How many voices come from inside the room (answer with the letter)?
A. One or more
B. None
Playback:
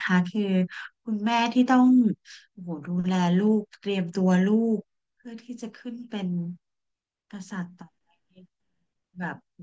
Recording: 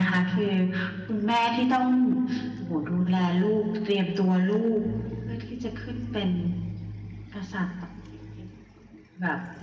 B